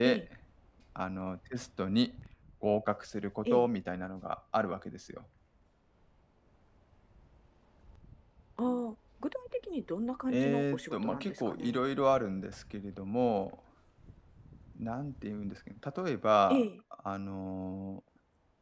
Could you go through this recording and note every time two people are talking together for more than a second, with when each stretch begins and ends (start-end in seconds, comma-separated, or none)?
10.3-11.8